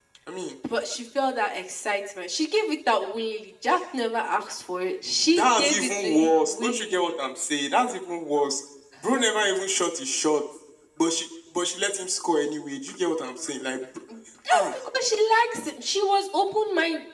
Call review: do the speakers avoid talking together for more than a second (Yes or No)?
No